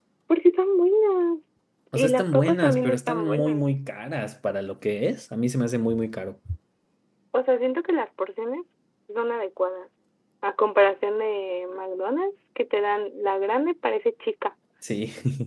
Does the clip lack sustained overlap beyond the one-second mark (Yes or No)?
No